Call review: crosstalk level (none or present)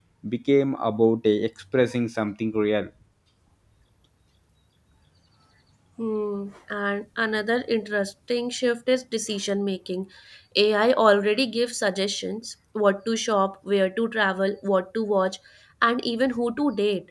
none